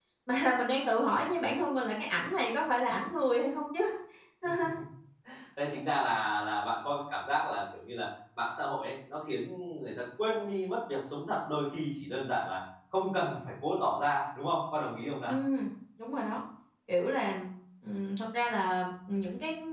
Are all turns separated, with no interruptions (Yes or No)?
Yes